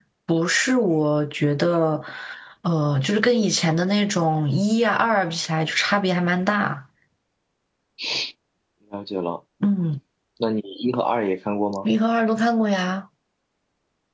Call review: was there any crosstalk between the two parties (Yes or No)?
No